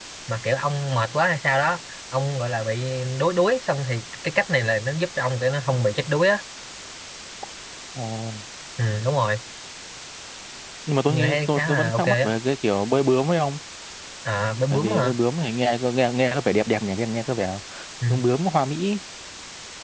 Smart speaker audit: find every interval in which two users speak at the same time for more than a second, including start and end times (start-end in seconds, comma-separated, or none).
11.1-12.3